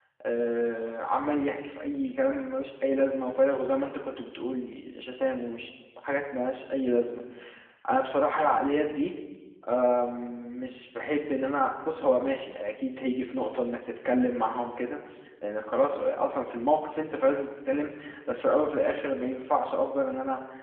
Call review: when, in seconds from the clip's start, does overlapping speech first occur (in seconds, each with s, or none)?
none